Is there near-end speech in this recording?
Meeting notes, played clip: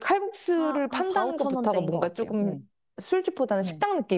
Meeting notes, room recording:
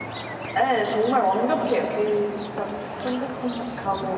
Yes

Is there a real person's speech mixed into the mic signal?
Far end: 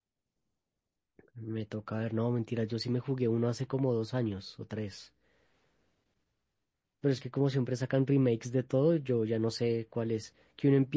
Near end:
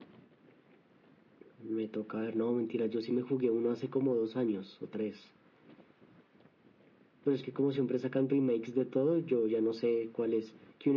No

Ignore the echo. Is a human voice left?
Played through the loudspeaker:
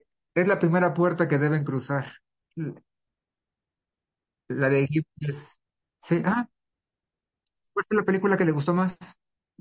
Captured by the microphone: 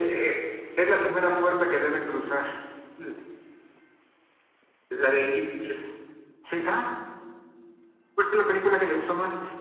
No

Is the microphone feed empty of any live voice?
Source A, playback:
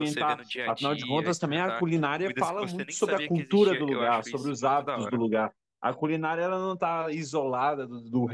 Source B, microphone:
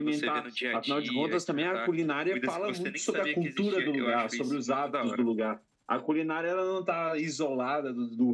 Yes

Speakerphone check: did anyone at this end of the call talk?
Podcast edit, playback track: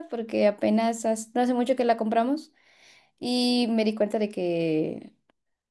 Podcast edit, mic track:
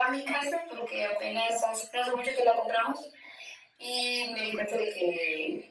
No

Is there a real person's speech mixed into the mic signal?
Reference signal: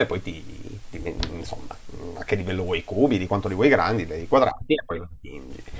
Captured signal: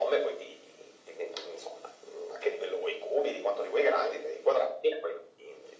No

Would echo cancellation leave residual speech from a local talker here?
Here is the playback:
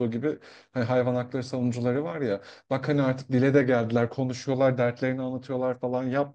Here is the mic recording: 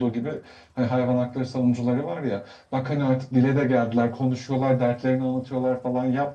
No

